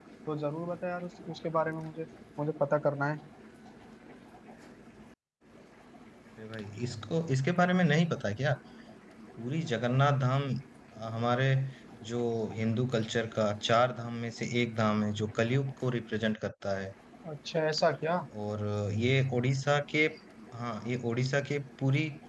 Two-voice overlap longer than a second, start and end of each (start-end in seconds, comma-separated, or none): none